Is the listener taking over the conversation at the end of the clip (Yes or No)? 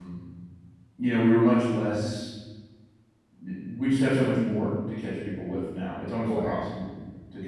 No